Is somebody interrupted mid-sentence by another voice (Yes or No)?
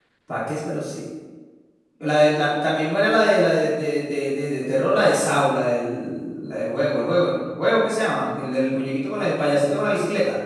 No